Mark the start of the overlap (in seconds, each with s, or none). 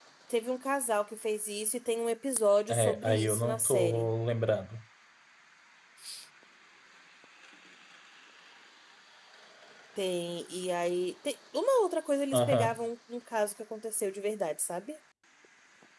2.7 s